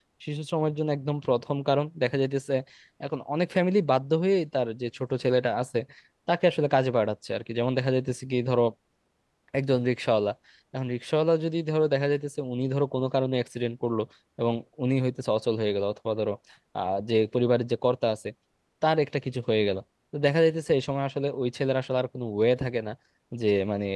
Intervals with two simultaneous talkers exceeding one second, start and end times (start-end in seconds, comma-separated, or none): none